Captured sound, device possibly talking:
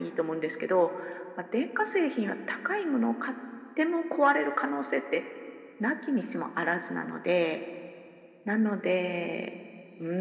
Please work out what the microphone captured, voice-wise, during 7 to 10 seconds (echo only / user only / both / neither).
echo only